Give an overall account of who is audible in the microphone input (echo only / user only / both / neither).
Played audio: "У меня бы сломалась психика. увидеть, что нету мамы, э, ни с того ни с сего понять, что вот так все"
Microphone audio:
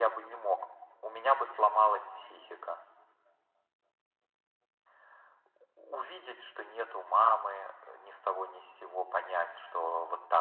echo only